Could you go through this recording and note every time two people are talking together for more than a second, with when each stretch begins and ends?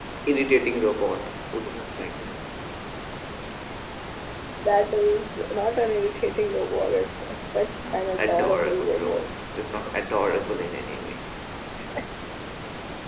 7.9-9.3

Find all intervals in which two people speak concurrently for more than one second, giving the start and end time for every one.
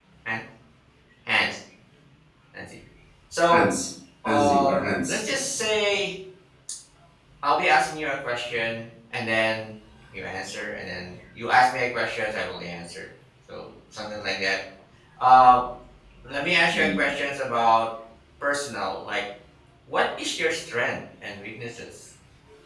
4.2-5.6

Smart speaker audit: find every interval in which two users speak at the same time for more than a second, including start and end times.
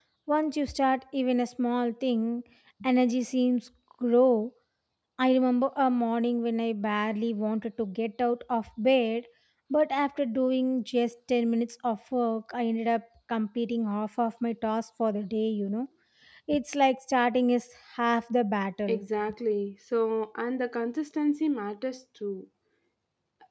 none

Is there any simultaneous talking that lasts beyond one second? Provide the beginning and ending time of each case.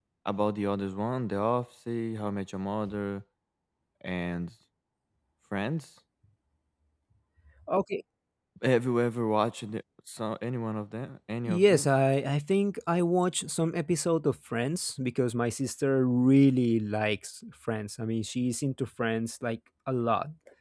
none

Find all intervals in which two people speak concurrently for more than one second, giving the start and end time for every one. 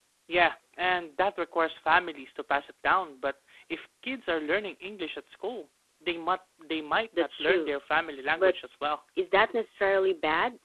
none

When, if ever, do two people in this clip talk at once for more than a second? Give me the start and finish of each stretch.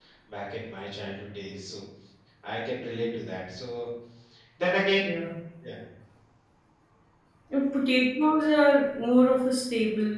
none

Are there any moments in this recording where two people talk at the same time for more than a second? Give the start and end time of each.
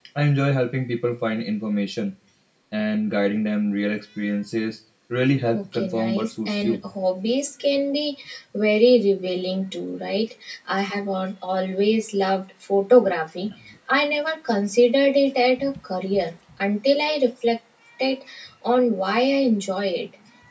5.5-6.8

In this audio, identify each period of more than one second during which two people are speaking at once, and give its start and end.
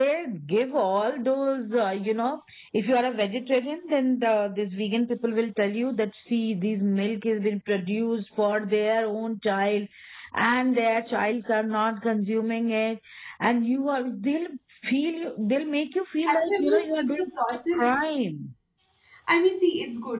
16.3-17.9

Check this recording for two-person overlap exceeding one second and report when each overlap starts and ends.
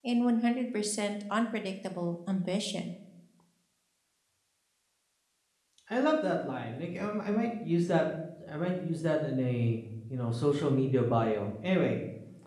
none

